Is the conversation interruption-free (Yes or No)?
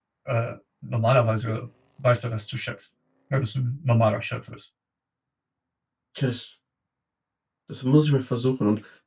Yes